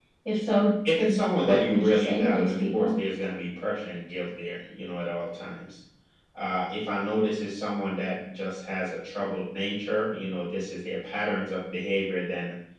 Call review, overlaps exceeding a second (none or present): present